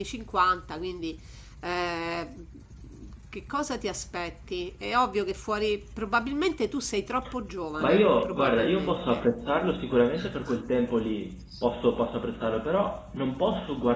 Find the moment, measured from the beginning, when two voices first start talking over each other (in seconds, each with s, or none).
7.8 s